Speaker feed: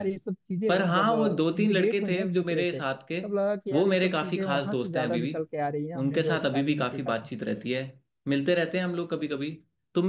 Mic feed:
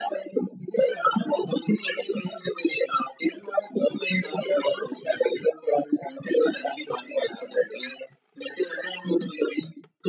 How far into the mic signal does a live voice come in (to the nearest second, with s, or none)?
none